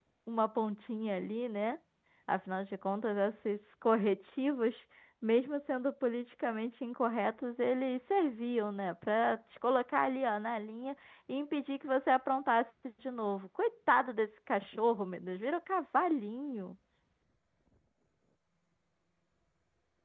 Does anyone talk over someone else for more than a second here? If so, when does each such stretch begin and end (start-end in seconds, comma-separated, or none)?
none